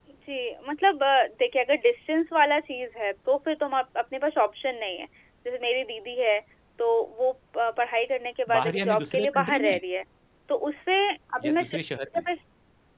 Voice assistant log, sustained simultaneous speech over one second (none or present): present